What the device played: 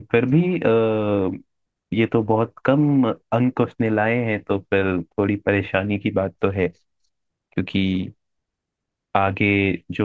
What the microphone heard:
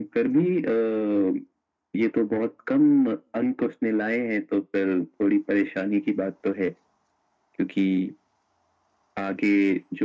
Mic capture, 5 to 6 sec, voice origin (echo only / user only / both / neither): echo only